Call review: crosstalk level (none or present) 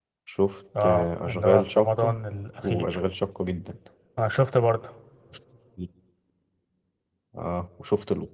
present